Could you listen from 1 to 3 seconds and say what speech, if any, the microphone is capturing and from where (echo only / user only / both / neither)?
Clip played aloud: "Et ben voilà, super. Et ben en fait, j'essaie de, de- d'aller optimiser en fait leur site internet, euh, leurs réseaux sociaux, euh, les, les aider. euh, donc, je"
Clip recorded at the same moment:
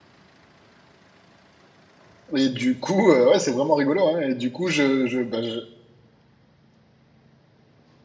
user only